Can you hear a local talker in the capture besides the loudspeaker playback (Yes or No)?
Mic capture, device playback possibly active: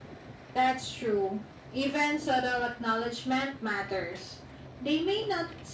No